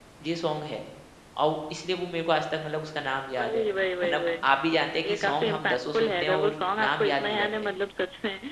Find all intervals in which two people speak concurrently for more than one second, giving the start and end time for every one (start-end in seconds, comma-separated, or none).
5.1-7.7